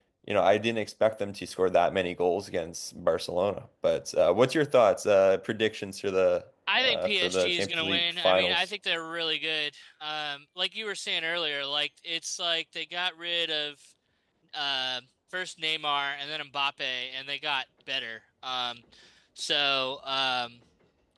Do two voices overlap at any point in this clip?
Yes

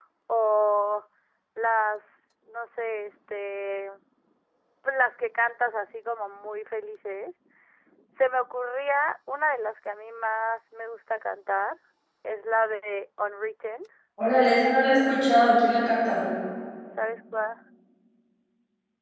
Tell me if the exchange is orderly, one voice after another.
Yes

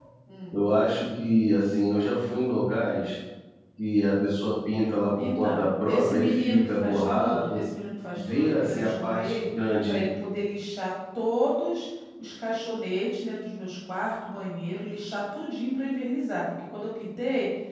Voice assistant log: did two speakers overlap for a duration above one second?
Yes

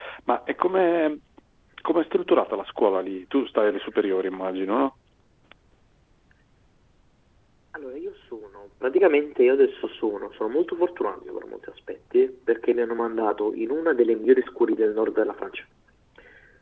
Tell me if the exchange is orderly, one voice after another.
Yes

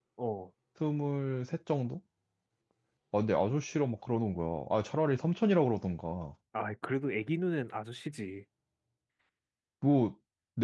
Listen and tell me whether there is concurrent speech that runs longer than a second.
No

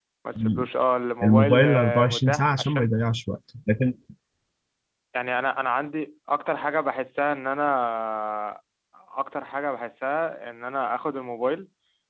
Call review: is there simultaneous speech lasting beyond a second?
Yes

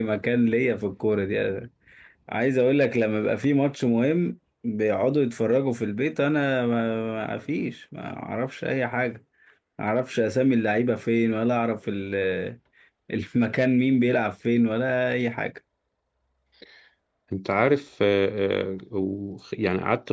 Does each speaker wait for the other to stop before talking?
Yes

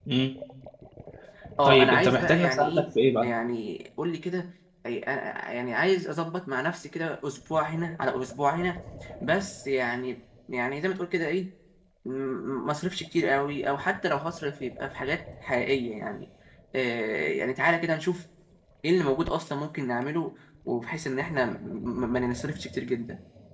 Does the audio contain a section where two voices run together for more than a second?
Yes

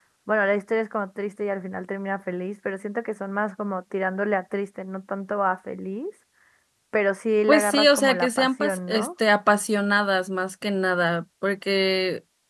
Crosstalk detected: Yes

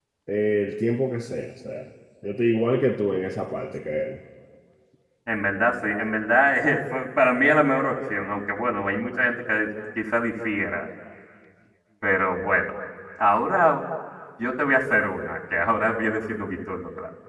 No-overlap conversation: Yes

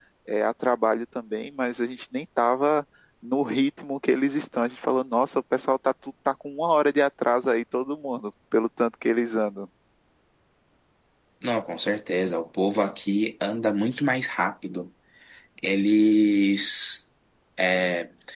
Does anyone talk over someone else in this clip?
No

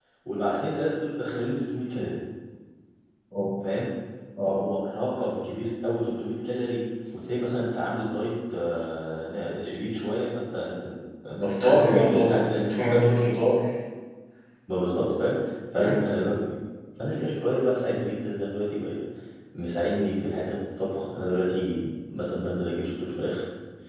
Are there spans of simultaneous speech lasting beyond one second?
Yes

